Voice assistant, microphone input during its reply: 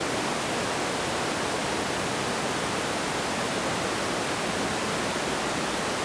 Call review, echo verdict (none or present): none